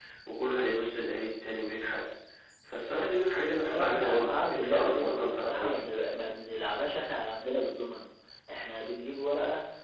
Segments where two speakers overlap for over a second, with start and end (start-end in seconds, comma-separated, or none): 3.7-5.8